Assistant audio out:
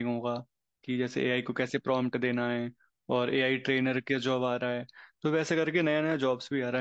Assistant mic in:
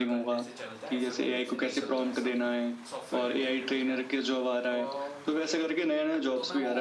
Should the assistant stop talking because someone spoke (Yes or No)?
Yes